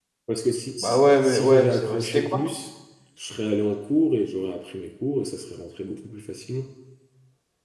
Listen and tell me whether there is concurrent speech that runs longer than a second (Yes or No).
Yes